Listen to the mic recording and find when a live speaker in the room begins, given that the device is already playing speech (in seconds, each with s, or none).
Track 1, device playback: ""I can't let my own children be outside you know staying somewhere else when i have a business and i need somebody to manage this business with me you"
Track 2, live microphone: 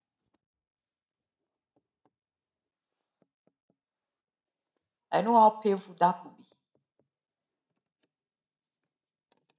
5.1 s